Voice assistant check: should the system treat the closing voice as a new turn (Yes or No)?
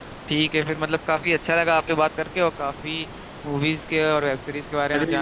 Yes